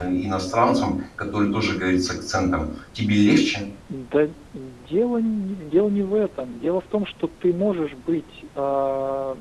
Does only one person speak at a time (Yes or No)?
Yes